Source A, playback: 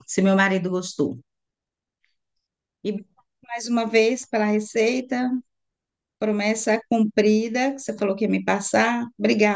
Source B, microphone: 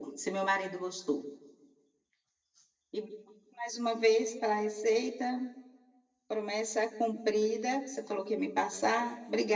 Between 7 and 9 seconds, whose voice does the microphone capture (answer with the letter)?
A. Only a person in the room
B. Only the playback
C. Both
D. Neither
B